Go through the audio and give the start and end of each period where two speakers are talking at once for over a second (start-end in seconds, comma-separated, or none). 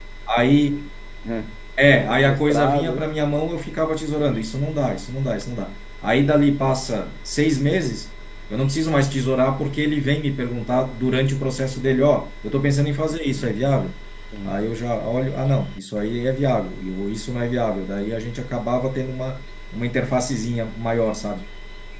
1.9-3.1